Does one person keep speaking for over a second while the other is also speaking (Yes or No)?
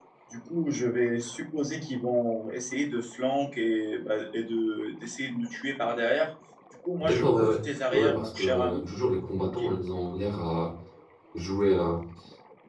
Yes